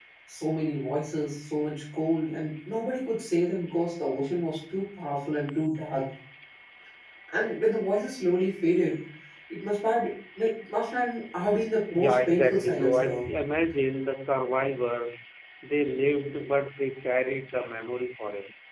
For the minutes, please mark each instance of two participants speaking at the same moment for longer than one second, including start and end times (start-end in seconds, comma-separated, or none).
11.9-13.2